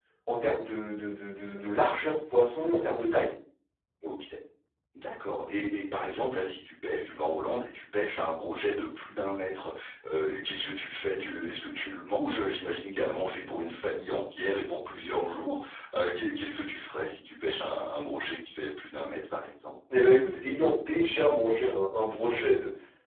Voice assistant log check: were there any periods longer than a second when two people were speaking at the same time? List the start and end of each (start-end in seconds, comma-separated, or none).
none